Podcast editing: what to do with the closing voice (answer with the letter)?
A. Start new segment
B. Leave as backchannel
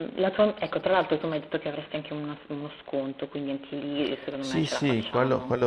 A